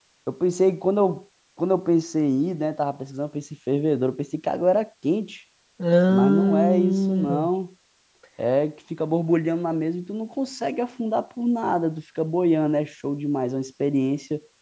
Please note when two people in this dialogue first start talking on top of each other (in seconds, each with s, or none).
6.1 s